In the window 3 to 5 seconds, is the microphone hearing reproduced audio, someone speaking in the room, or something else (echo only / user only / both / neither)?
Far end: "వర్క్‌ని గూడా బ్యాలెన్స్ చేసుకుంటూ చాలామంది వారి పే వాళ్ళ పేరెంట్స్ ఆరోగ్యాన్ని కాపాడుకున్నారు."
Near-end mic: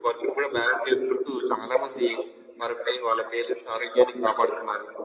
echo only